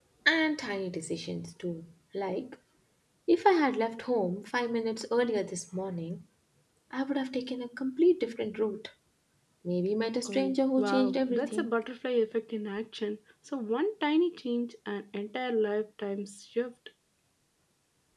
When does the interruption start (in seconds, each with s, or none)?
10.2 s